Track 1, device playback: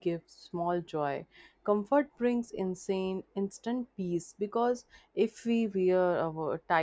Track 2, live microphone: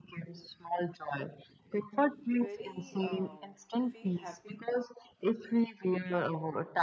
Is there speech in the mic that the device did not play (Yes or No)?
Yes